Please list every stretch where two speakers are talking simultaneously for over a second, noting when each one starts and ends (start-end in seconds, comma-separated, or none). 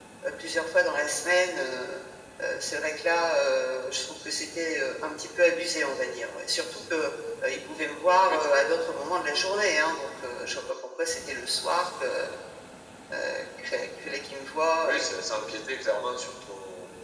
none